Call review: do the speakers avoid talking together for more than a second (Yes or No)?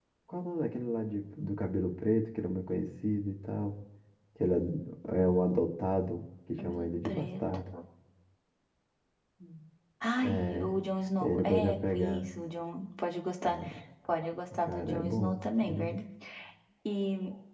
No